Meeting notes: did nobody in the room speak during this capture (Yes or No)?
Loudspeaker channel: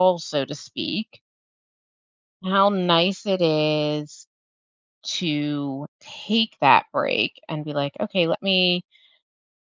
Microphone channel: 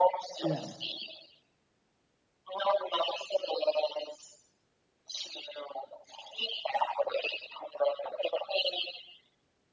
No